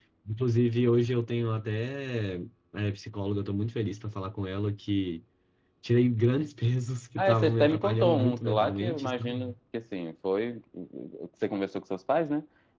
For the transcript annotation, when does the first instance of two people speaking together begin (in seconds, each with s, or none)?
7.2 s